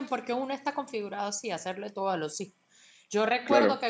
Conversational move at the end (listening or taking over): listening